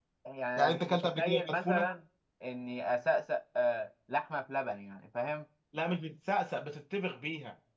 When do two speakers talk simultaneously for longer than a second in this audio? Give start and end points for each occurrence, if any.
0.6-1.9

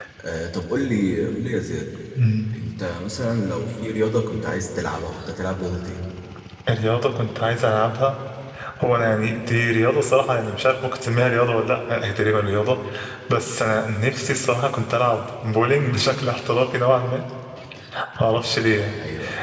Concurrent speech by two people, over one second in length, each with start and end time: none

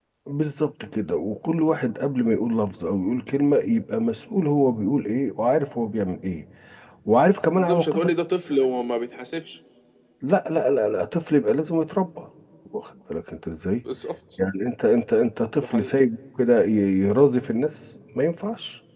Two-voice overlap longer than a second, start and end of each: none

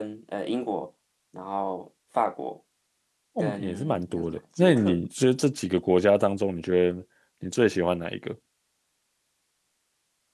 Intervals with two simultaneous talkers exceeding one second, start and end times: 3.4-5.0

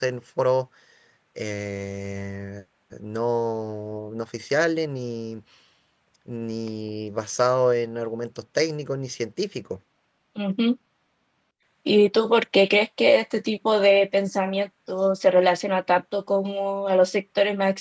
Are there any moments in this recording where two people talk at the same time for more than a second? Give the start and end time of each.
none

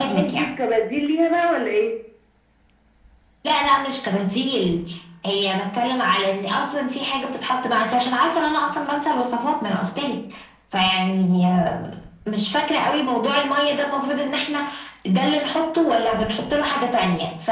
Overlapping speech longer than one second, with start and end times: none

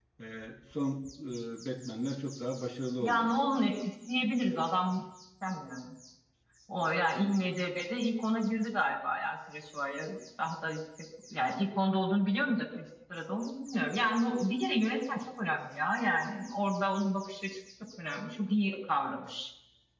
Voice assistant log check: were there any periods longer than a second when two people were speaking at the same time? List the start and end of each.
none

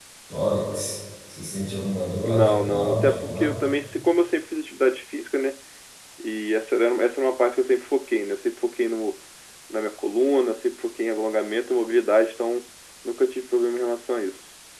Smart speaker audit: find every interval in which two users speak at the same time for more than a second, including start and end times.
2.2-3.5

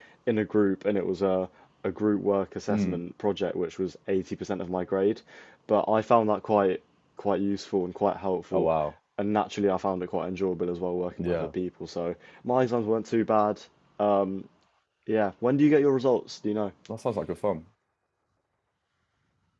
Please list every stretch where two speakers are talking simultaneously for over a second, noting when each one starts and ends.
none

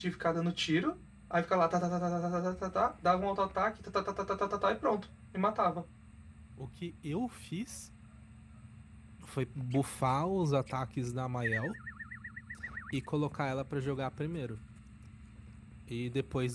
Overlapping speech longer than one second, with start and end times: none

